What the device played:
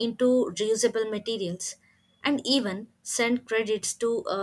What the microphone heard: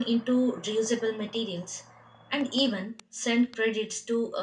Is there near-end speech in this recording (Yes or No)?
No